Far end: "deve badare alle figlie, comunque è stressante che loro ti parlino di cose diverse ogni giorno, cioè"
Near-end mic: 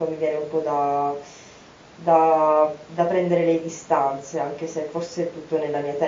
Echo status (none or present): none